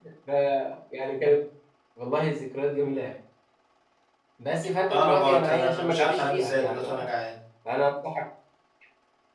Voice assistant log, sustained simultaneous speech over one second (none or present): present